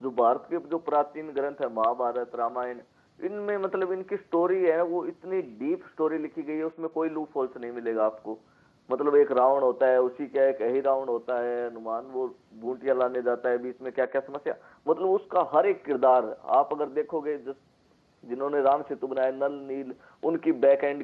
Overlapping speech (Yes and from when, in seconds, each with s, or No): No